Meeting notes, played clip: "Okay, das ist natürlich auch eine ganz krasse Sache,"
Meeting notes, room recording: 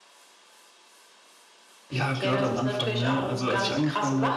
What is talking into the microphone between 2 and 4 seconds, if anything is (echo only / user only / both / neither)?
both